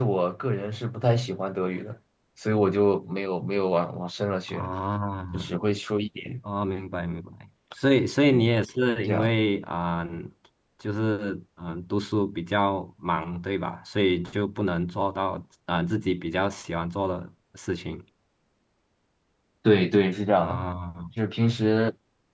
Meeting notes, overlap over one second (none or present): none